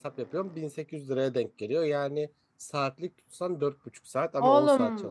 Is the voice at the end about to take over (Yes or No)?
Yes